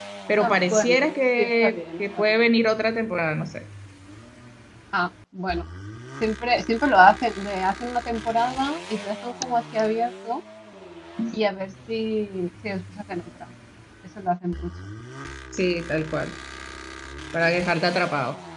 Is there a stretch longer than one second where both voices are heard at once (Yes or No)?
Yes